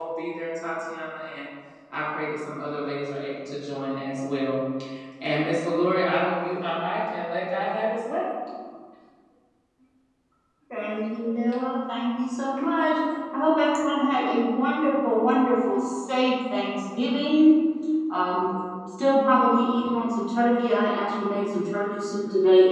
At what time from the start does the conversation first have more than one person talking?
none

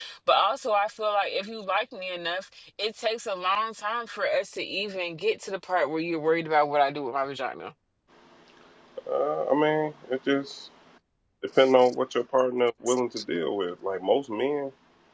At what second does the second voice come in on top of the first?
none

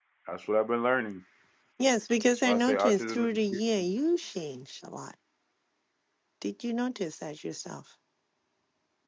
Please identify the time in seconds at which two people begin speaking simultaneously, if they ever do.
2 s

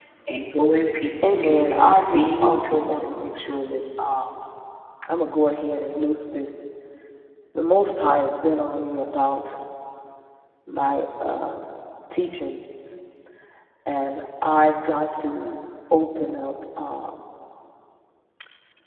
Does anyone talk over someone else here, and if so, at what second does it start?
1 s

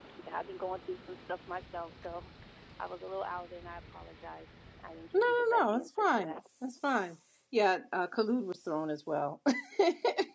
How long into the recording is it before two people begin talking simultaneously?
5 s

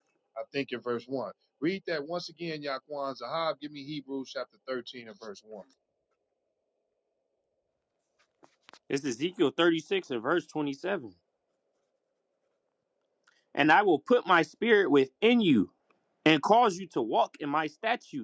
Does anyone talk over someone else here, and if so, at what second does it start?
none

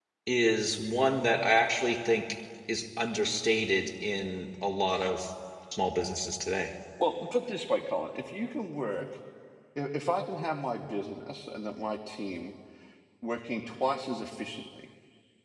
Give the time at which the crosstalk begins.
none

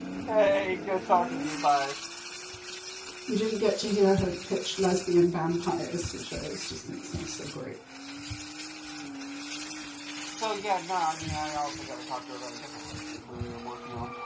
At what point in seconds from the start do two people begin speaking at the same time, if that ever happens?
none

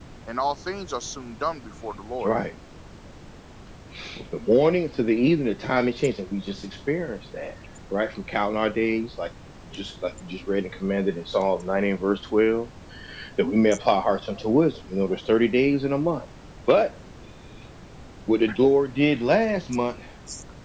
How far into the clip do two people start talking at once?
none

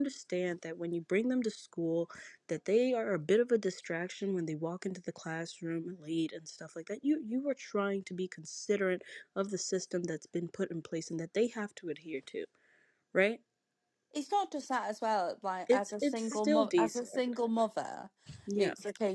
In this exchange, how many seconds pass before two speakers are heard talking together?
16 s

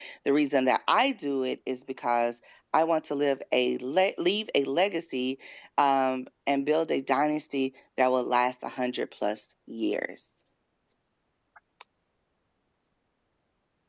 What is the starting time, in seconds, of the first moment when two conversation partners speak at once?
none

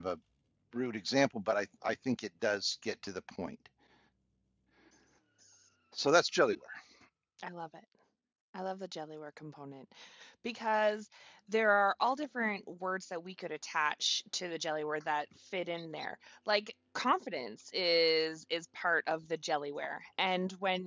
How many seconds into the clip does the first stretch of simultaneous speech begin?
none

